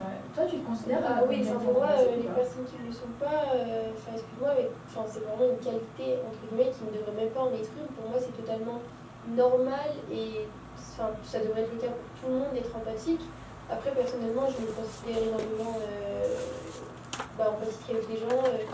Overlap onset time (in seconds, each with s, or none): 0.9 s